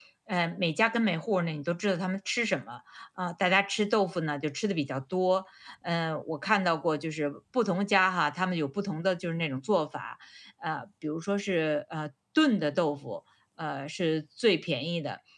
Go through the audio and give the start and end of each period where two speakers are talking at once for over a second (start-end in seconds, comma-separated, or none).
none